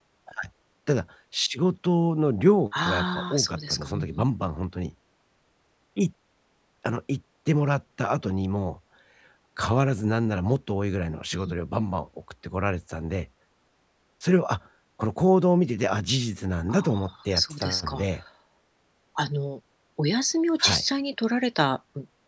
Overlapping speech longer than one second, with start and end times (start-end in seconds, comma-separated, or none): 2.9-4.3, 16.7-18.0